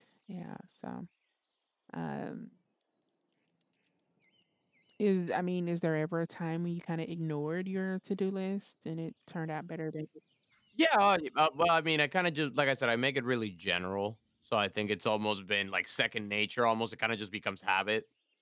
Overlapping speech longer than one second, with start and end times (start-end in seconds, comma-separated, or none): none